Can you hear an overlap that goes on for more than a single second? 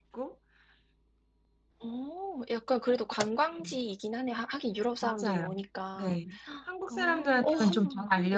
Yes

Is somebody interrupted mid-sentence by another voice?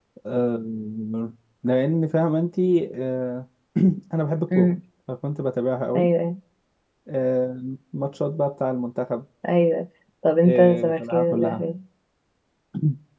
Yes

